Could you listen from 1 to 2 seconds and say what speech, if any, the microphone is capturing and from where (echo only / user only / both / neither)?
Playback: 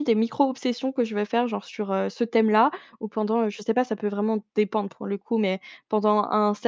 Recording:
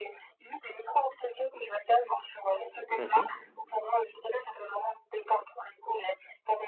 echo only